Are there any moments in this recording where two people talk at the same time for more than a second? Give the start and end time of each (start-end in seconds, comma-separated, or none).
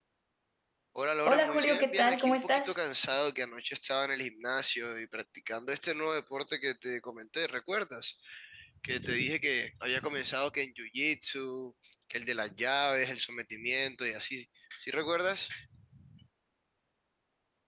1.2-2.8